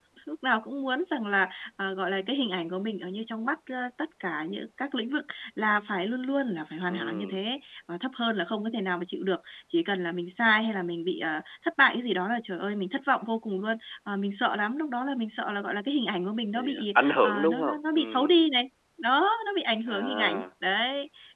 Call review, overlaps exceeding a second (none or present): present